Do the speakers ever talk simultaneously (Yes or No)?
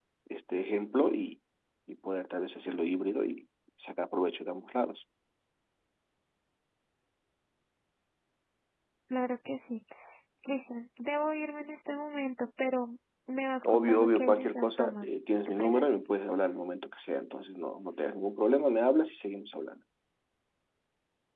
Yes